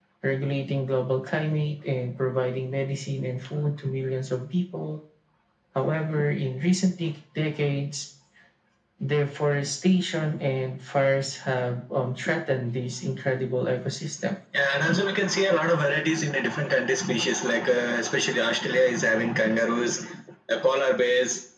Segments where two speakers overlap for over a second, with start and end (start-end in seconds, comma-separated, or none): none